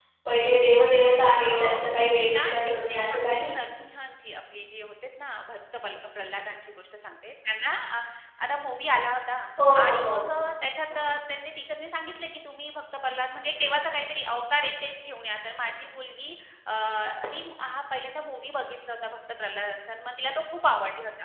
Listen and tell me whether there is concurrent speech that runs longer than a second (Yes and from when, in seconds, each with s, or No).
Yes, from 1.5 s